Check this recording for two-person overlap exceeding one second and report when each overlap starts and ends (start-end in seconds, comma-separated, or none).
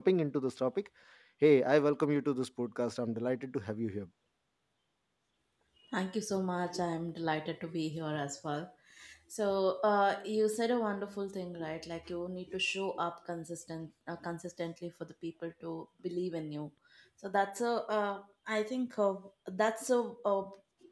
none